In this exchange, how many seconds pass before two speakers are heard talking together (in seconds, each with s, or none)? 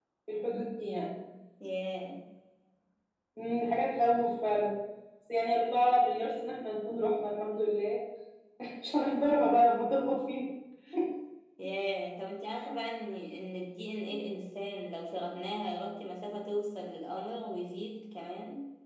none